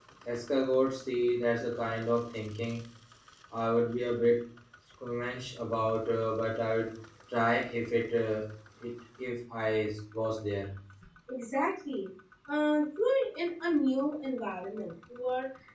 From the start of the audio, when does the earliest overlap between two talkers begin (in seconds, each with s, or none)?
none